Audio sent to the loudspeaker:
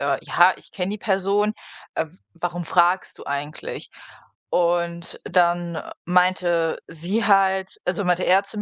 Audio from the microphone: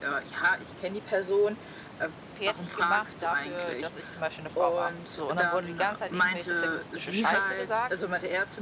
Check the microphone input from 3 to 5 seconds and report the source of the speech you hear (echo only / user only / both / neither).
both